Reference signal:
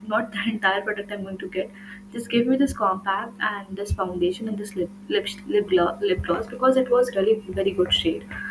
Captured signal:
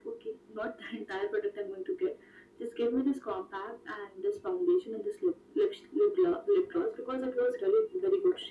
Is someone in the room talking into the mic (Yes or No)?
No